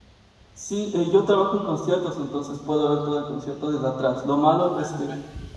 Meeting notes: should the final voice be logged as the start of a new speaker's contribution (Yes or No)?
No